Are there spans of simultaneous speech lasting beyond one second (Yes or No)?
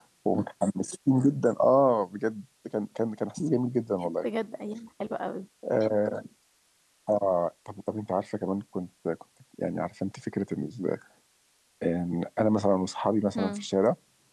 No